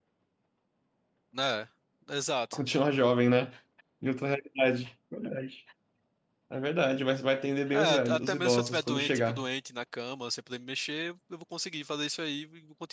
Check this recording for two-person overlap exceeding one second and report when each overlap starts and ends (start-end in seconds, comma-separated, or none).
7.7-9.4